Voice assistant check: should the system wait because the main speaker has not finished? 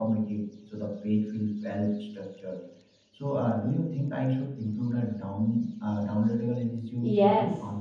No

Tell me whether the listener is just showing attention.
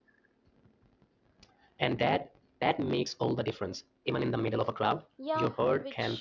No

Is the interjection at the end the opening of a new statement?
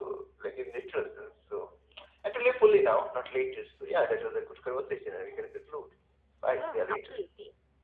Yes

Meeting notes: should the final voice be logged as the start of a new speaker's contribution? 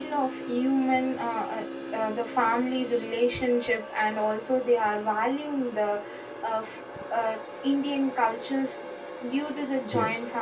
No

